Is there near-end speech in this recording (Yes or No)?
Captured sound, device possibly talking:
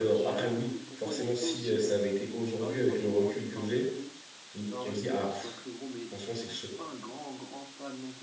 Yes